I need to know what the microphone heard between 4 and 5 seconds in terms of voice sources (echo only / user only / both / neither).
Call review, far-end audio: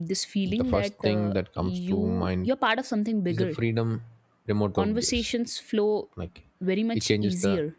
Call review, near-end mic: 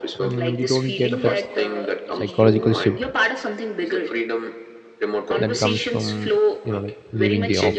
echo only